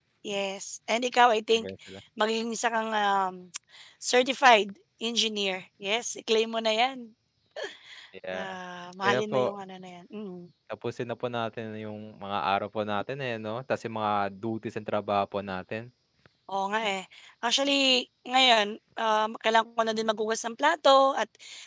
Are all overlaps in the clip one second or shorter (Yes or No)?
Yes